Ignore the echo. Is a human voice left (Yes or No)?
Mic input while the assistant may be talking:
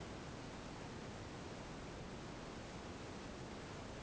No